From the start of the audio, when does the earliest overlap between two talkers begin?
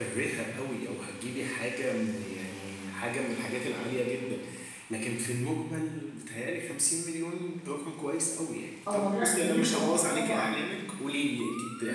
8.8 s

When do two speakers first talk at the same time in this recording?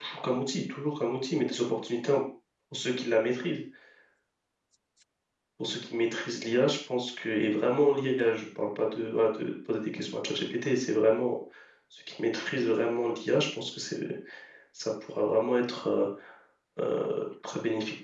none

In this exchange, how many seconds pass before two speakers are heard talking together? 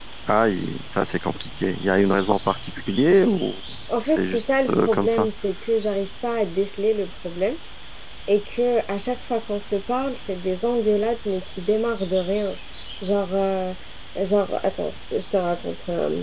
4.1 s

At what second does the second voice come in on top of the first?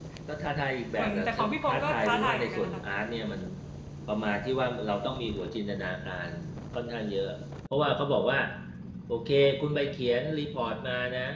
1.0 s

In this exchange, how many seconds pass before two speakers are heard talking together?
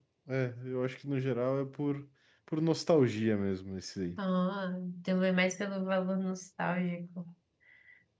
none

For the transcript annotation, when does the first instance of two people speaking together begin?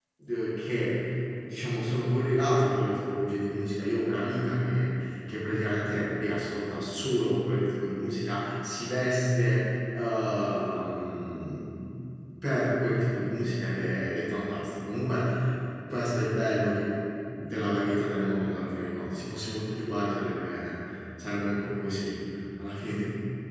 none

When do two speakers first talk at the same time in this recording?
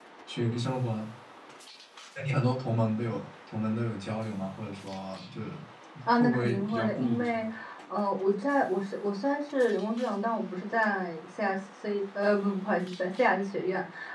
6.2 s

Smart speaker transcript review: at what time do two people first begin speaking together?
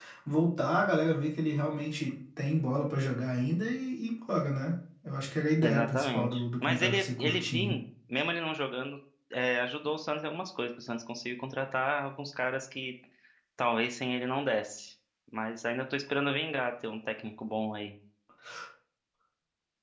5.6 s

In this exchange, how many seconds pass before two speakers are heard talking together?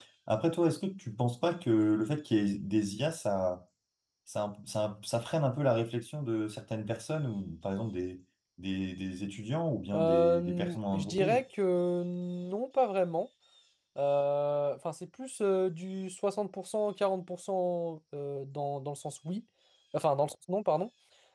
9.9 s

